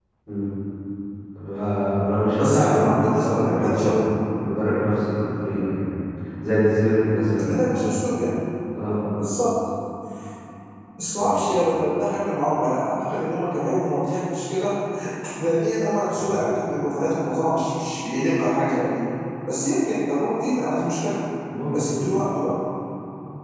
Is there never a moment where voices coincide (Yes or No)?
No